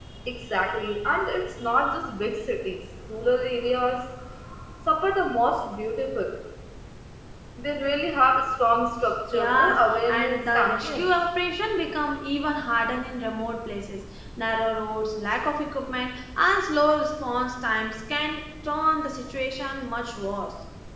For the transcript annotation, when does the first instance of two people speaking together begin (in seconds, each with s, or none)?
9.3 s